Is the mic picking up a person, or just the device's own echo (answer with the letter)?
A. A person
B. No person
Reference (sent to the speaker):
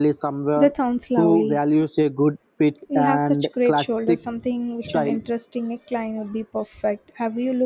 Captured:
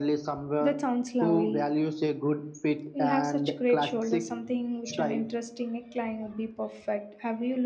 B